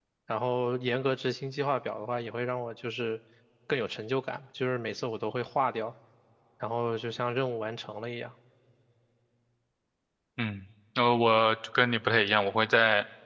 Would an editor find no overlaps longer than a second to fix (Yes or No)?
Yes